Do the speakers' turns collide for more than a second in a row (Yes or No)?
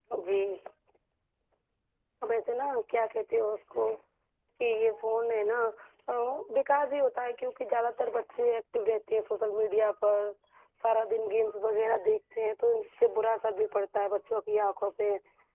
No